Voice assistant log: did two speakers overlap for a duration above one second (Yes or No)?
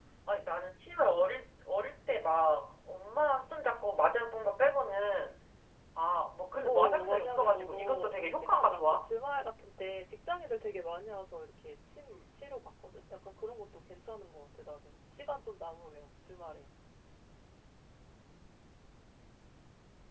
Yes